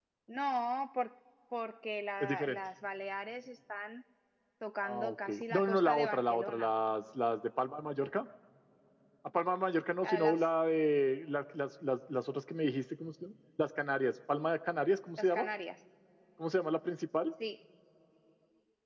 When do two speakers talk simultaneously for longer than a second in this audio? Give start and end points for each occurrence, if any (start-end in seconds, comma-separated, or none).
4.8-6.7